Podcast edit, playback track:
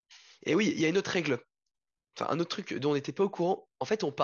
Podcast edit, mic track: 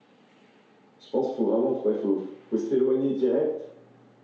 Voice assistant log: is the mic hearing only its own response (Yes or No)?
No